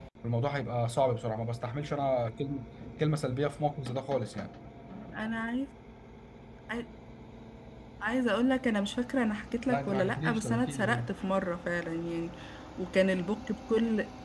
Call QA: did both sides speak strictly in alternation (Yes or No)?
No